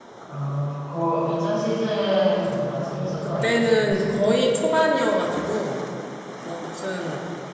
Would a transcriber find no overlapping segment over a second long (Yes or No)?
No